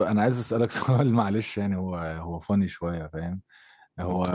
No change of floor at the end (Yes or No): Yes